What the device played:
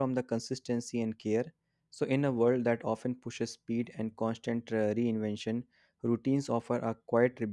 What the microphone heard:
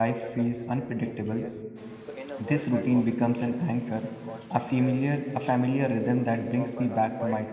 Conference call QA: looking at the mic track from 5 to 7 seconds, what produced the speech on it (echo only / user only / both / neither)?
both